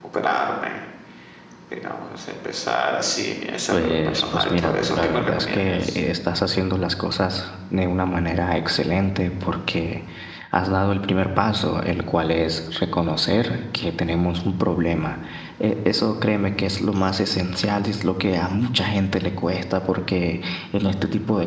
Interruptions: present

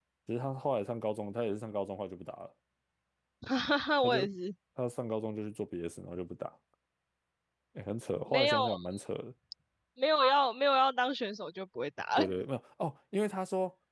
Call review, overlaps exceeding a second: none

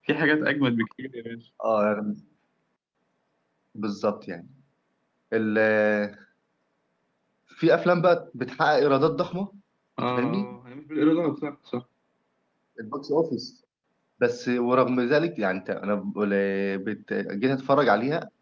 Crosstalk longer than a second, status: none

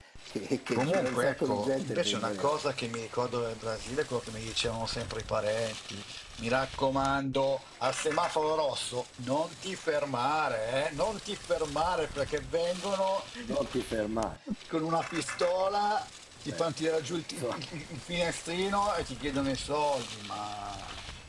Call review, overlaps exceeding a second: present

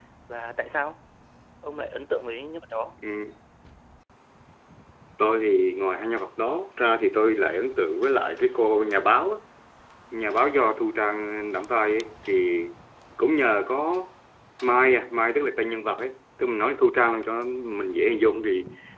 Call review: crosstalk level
none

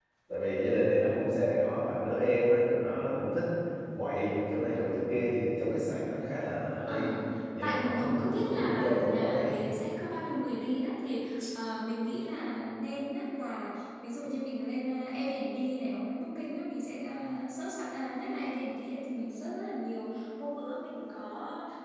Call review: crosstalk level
present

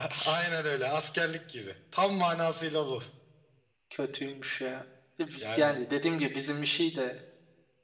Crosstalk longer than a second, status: none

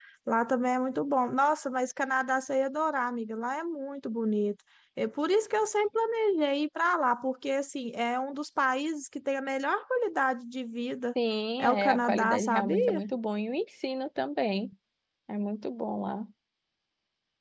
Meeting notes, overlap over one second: present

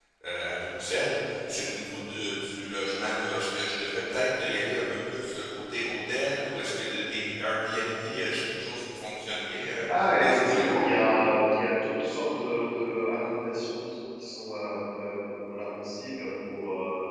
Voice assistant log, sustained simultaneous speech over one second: none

